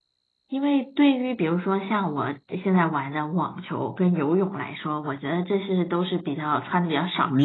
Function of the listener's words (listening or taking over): taking over